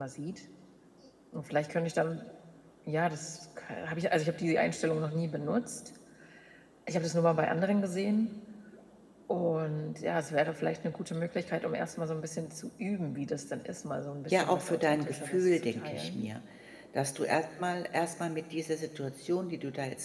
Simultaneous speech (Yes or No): Yes